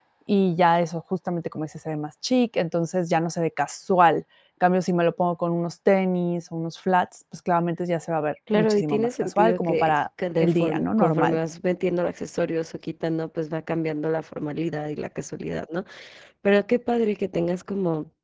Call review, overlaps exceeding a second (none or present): present